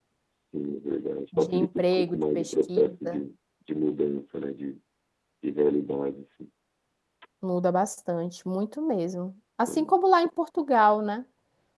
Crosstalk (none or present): present